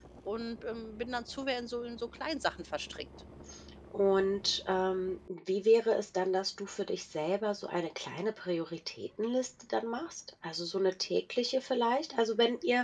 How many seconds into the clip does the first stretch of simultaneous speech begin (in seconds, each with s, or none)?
none